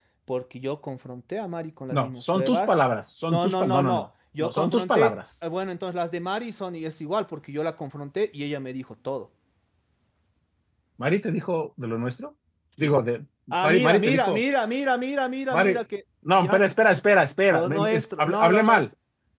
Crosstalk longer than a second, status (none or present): present